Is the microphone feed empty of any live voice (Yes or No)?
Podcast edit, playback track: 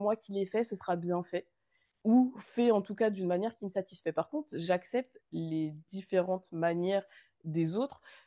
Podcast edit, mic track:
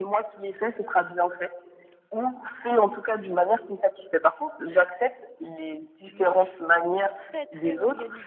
No